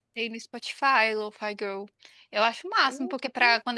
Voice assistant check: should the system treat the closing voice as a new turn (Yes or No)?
No